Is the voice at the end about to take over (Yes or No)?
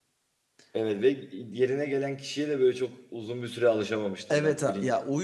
Yes